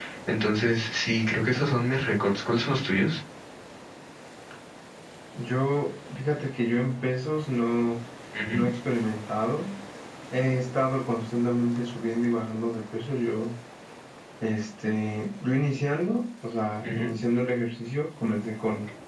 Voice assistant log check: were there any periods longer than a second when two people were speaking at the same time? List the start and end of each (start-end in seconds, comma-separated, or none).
none